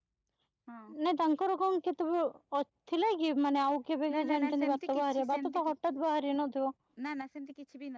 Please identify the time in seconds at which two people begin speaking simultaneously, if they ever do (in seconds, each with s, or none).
4.1 s